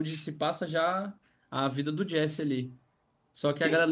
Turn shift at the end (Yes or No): No